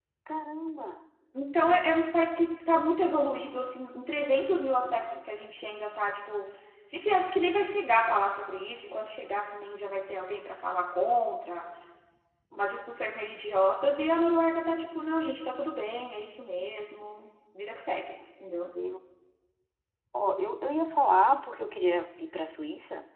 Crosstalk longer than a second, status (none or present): none